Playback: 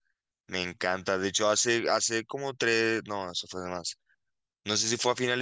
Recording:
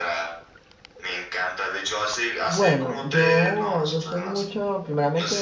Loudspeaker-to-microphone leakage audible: Yes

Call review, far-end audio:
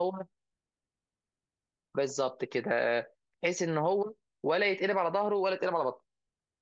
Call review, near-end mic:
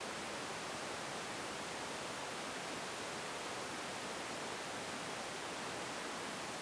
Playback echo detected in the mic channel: No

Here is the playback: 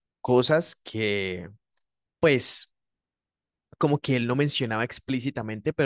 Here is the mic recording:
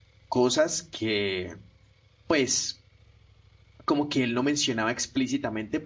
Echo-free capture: No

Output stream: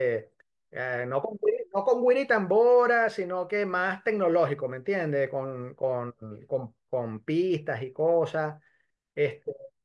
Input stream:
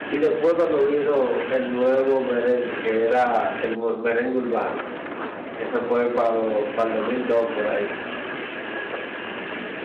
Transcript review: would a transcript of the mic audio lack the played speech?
Yes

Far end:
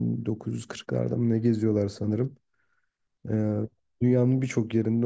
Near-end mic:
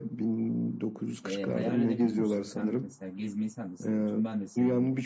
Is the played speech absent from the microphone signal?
No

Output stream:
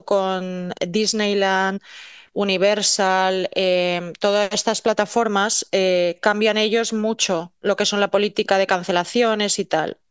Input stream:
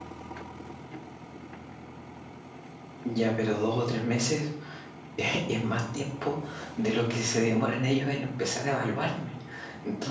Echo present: No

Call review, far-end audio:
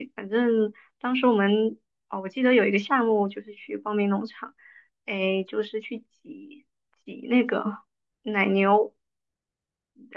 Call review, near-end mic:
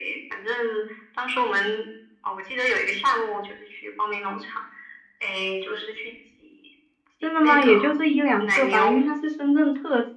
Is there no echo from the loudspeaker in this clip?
No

